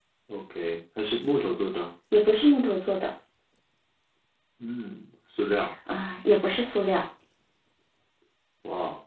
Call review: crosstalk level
none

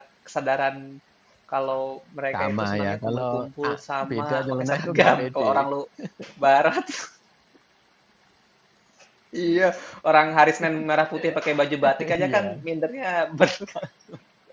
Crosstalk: present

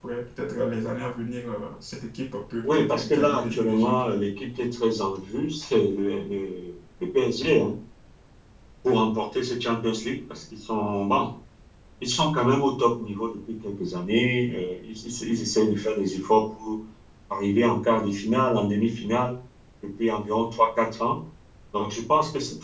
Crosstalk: present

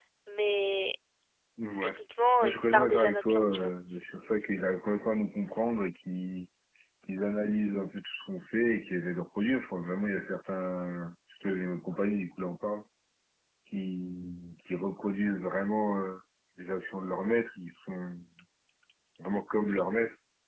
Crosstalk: present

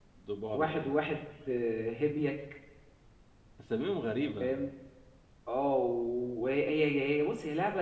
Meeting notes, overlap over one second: none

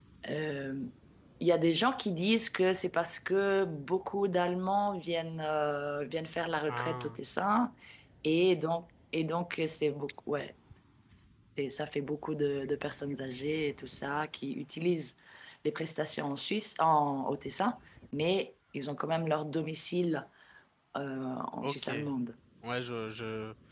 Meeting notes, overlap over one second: none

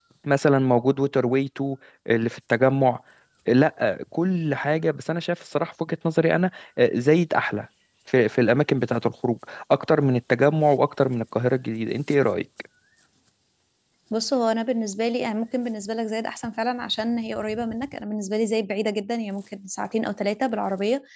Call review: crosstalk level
none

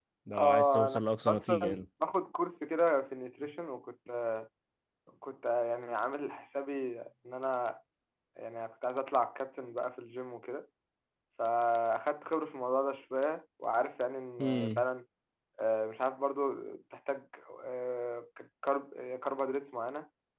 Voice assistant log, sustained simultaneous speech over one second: present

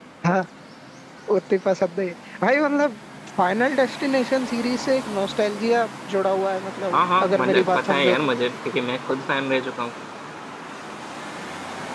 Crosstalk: present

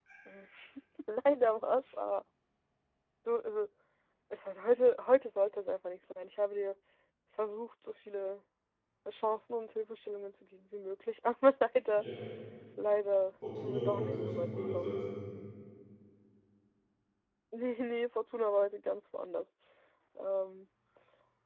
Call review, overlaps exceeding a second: present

